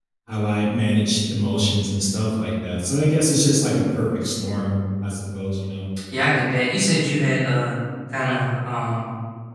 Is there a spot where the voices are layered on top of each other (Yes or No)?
No